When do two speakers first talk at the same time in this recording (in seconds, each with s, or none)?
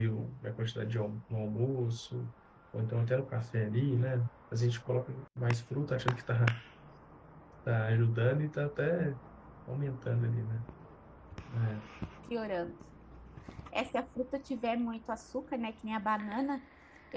none